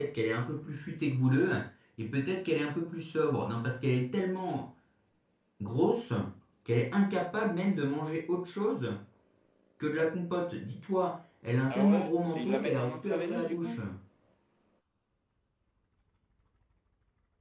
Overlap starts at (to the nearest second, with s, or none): 12 s